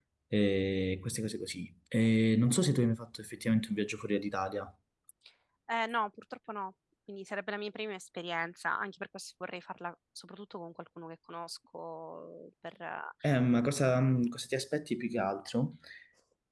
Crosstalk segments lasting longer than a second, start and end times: none

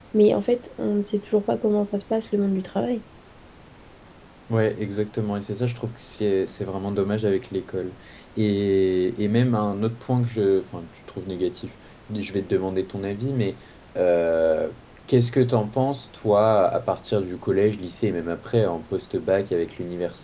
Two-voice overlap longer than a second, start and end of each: none

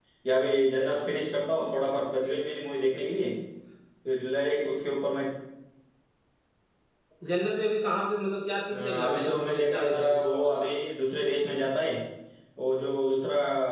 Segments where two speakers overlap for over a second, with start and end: 8.7-10.8

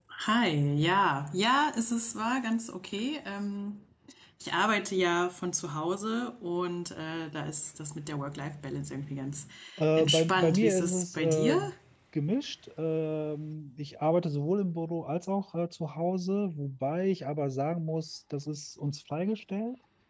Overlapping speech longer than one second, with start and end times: 10.0-11.6

